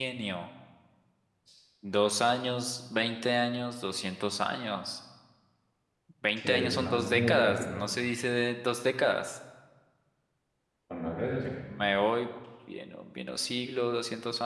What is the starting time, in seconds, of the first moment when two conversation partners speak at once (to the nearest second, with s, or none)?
6 s